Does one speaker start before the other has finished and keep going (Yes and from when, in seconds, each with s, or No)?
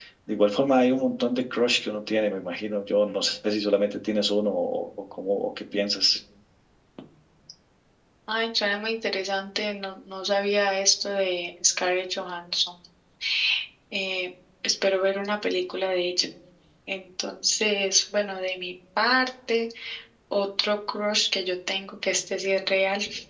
No